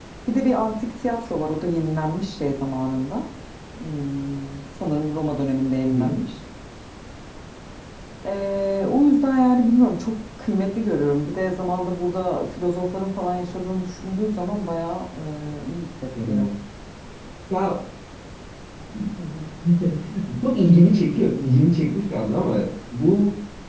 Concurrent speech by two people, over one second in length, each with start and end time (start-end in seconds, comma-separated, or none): none